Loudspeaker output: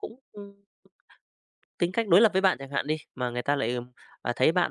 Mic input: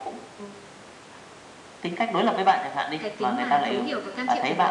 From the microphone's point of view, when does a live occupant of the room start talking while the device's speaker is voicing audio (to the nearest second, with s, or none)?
3 s